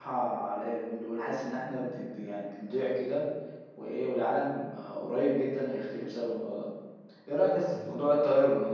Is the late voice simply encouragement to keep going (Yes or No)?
Yes